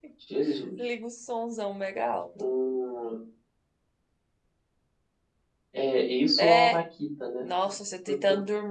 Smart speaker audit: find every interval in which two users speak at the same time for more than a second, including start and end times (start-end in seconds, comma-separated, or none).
none